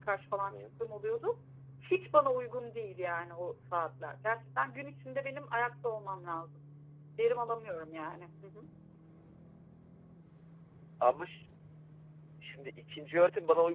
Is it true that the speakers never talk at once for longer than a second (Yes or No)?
Yes